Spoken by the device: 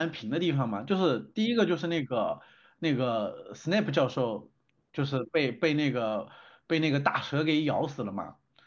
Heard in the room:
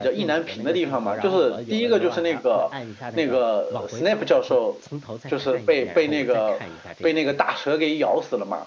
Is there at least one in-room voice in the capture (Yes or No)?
Yes